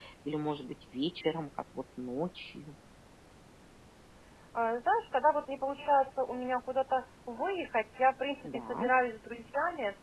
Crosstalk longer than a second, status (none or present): none